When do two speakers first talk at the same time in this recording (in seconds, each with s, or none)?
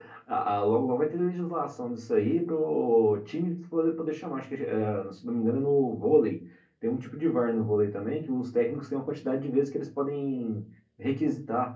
none